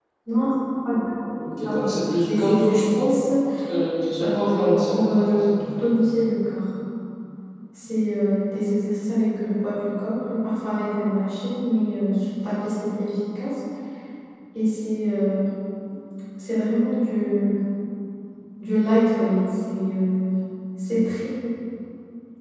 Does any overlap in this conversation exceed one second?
Yes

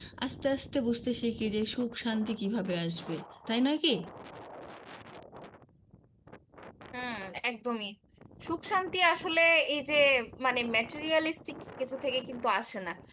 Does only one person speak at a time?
Yes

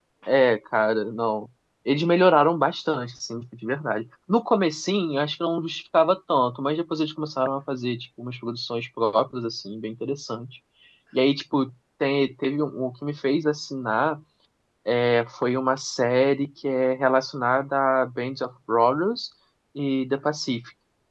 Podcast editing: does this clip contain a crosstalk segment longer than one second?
No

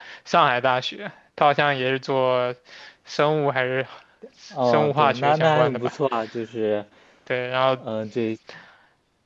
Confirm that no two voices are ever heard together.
No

